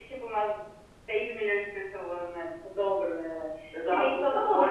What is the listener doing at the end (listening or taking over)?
taking over